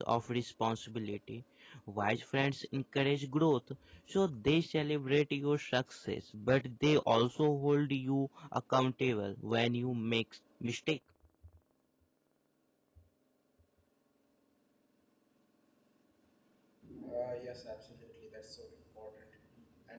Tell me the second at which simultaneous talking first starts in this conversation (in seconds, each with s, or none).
none